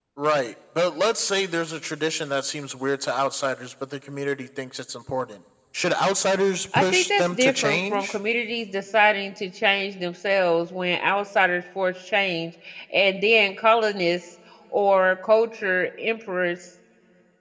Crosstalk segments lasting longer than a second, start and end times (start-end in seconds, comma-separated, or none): 6.8-8.2